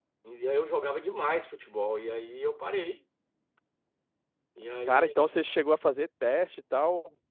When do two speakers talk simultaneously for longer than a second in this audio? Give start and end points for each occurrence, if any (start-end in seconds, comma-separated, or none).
none